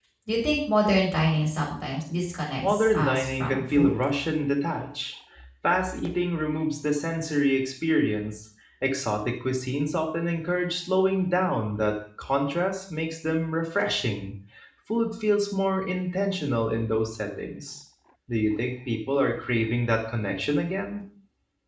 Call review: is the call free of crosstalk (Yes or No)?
No